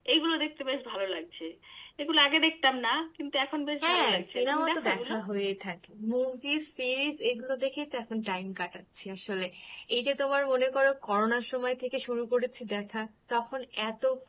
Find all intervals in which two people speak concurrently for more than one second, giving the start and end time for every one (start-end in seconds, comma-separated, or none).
3.8-5.1